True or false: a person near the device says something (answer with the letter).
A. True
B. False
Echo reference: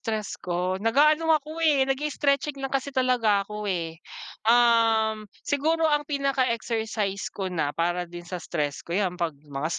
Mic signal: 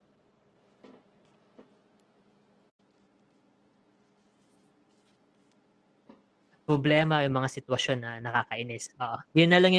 A